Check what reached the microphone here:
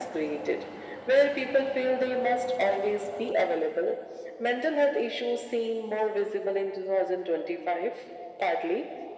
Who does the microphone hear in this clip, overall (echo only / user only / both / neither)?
echo only